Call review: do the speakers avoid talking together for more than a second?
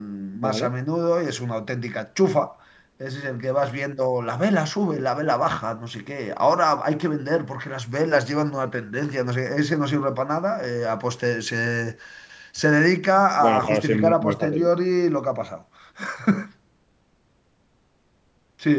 No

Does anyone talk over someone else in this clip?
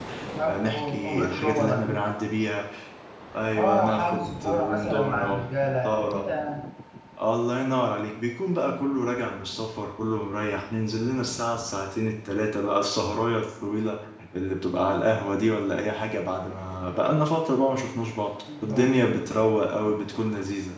Yes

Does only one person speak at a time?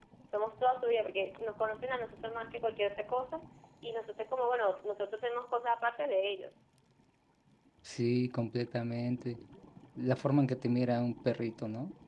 Yes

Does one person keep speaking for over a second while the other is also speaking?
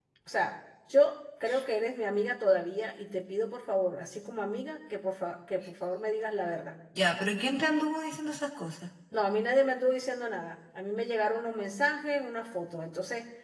No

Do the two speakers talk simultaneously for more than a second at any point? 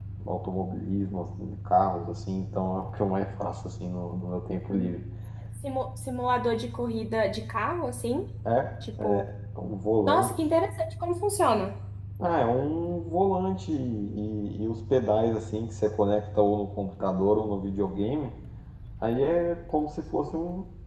No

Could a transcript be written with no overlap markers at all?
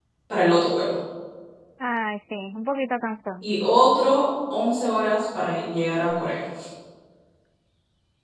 Yes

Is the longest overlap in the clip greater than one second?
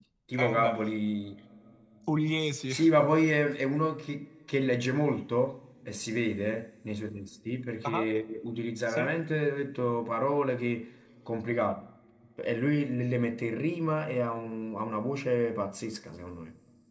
No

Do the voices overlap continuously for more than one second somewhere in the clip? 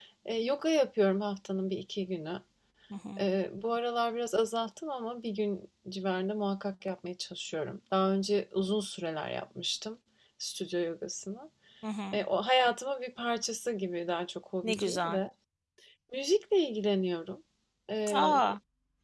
No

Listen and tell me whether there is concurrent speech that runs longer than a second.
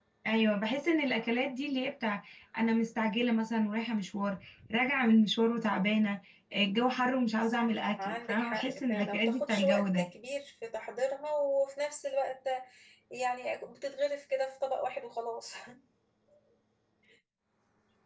Yes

